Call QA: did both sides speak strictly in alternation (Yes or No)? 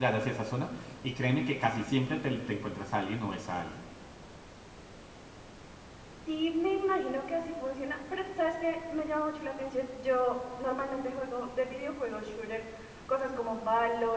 Yes